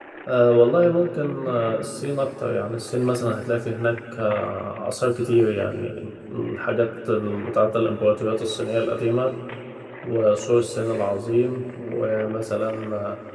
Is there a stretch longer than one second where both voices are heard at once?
No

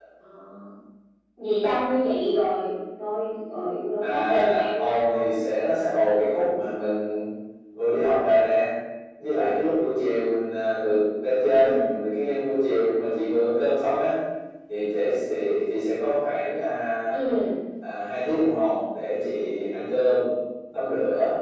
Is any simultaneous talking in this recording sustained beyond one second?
Yes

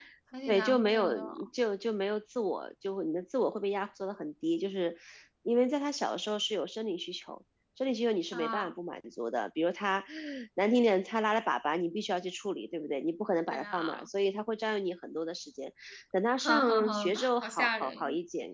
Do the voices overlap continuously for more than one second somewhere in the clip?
Yes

